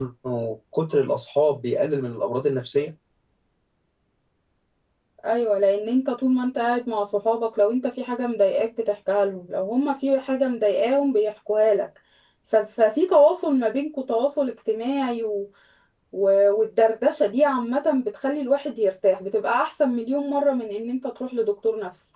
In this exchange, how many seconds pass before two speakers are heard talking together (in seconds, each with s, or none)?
none